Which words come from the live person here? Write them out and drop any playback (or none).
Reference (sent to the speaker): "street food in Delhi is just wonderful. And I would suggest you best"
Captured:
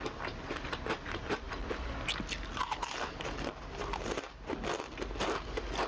none